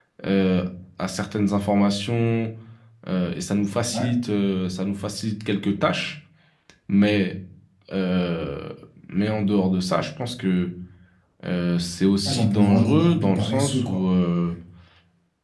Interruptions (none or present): present